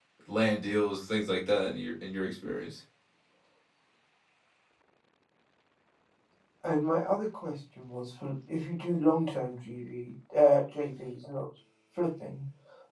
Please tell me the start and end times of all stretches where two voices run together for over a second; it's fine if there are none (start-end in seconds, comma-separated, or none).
none